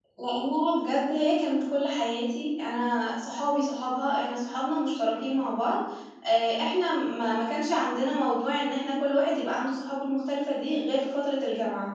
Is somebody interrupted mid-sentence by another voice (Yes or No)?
No